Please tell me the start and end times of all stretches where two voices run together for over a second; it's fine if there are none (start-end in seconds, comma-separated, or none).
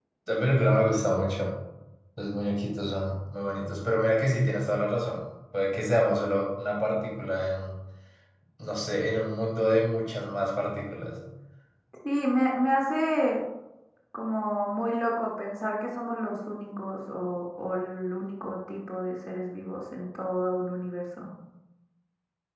none